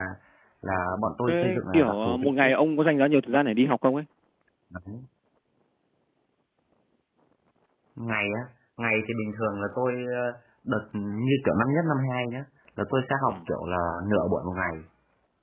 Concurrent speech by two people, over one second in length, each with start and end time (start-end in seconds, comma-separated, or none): 1.3-2.5